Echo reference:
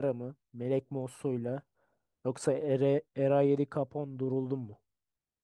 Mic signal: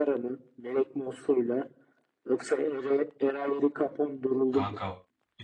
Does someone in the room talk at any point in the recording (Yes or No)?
Yes